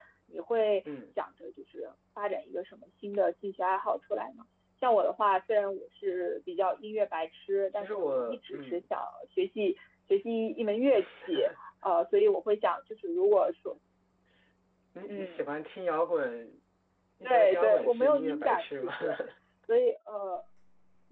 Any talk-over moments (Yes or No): Yes